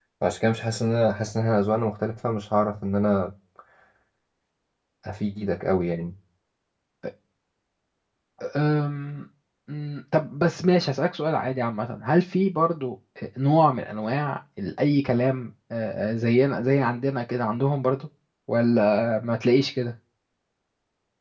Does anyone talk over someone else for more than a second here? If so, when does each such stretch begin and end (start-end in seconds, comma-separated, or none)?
none